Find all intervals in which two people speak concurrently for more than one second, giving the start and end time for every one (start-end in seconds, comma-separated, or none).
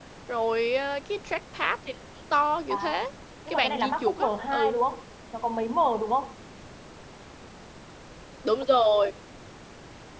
3.5-4.8